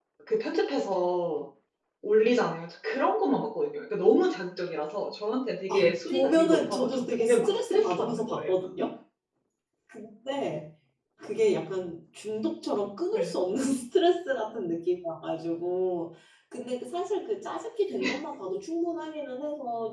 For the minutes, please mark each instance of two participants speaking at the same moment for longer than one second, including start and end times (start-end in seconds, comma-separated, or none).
5.7-8.5